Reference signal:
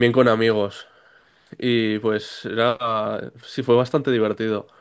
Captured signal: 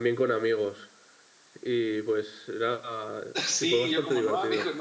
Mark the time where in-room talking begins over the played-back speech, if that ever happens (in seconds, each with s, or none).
3.4 s